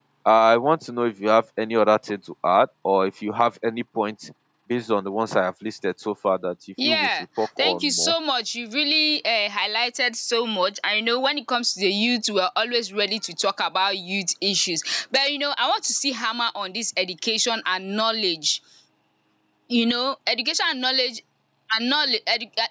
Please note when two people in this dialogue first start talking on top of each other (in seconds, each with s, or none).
6.8 s